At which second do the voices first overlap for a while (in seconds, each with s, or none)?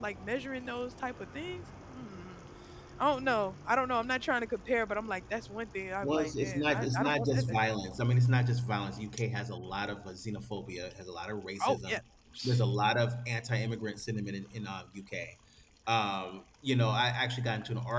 6.0 s